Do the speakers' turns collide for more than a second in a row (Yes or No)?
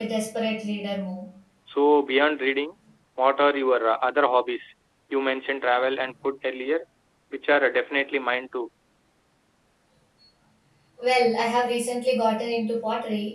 No